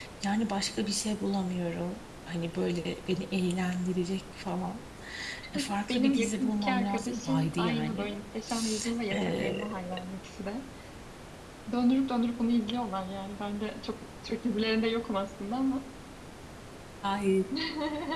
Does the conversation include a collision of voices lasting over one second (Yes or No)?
Yes